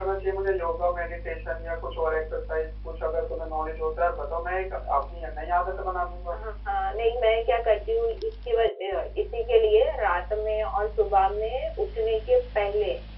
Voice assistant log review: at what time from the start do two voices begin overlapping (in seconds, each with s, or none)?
none